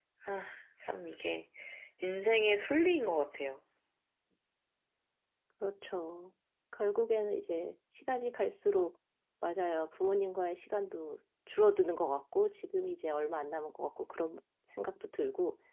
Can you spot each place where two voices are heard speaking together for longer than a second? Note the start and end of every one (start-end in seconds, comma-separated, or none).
none